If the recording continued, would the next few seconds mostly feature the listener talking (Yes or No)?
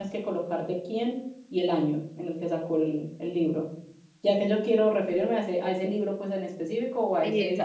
Yes